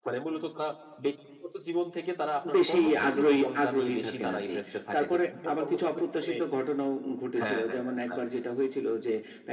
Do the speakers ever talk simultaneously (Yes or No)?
Yes